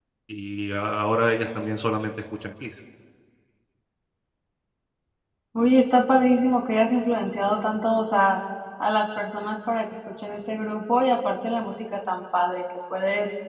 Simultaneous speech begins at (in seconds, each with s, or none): none